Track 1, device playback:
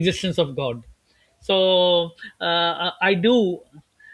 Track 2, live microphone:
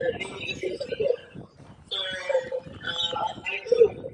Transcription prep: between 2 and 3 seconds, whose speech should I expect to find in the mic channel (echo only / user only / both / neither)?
echo only